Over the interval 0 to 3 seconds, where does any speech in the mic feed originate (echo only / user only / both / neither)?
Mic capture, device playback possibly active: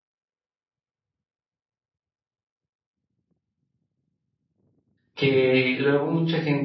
neither